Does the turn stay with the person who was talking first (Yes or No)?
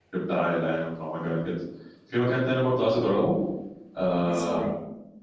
Yes